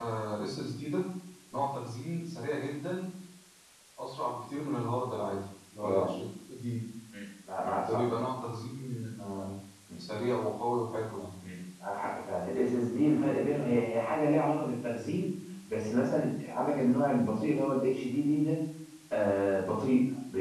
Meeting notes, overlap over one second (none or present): none